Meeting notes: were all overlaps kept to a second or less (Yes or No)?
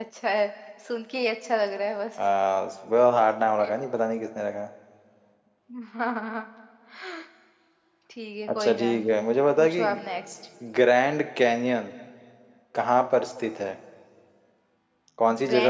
Yes